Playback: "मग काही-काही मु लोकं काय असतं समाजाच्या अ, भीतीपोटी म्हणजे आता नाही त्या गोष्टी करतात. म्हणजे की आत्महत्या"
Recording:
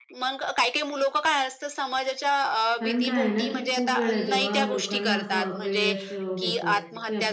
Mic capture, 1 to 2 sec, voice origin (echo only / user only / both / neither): echo only